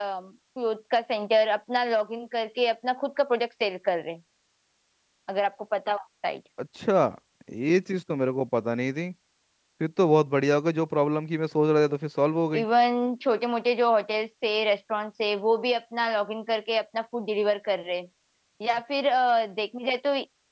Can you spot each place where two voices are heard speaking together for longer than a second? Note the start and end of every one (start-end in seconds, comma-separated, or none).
none